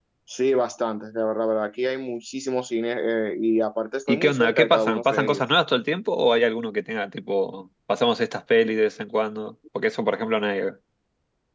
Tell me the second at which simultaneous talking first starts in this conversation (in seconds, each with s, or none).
4.1 s